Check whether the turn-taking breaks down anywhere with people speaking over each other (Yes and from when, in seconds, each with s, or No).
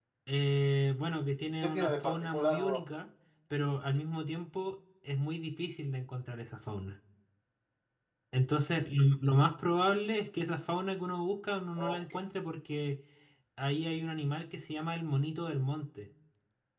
Yes, from 1.6 s